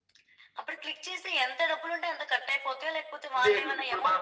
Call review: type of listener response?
taking over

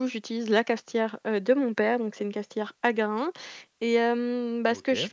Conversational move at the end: listening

